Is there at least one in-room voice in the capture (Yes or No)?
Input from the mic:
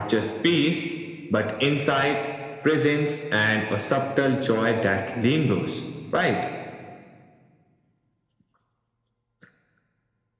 No